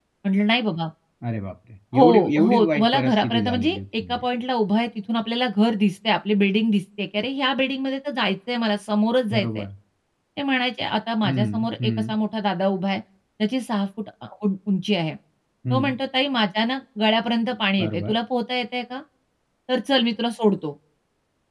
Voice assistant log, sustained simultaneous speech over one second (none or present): present